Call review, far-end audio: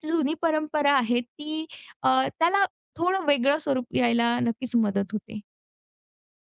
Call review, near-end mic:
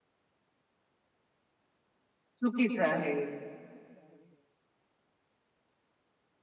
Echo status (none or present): none